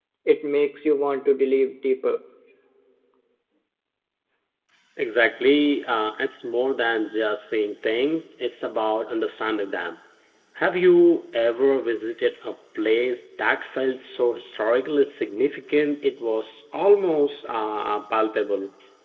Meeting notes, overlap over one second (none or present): none